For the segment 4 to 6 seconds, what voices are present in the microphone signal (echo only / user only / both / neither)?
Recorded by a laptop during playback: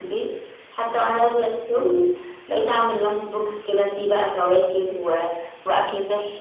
echo only